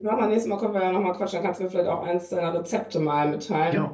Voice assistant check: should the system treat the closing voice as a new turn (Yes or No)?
Yes